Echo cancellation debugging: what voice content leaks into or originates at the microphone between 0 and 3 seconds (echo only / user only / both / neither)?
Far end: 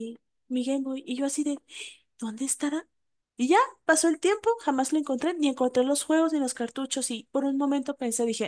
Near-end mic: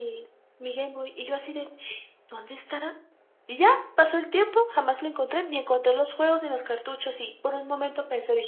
echo only